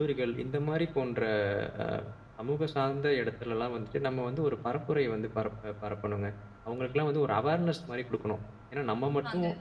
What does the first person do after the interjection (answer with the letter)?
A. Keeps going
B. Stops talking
A